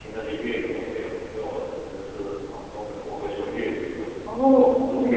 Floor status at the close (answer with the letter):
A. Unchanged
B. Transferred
B